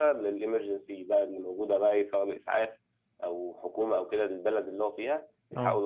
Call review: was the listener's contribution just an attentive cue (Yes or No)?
Yes